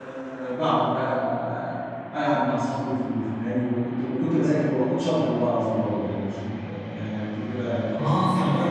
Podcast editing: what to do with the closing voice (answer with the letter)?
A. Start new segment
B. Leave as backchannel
A